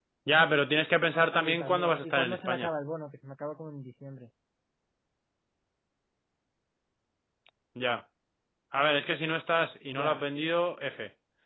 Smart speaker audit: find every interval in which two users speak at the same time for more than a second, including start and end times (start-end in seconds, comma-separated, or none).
1.4-2.7